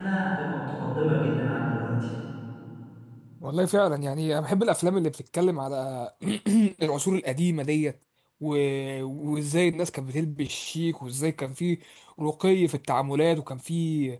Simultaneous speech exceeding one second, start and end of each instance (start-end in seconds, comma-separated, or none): none